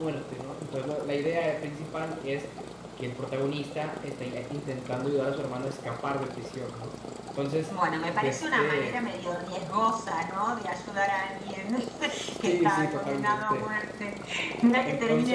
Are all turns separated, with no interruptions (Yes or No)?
No